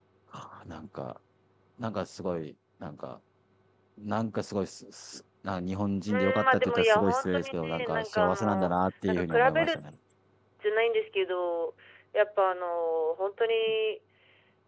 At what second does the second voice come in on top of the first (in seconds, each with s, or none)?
6.1 s